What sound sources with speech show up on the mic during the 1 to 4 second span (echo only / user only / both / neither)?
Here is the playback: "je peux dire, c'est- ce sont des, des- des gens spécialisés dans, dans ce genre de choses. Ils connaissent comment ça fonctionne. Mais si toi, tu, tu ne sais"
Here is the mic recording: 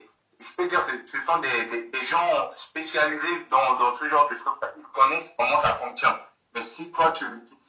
echo only